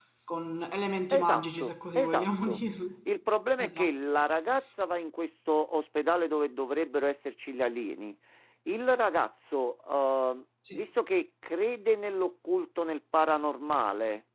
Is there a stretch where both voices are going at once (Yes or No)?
Yes